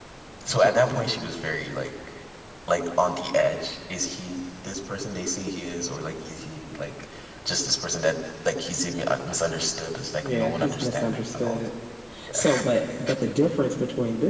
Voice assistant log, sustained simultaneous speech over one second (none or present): present